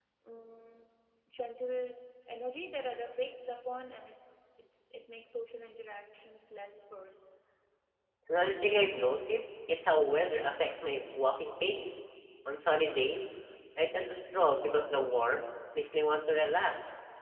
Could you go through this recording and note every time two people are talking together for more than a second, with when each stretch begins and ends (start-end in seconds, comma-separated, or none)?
none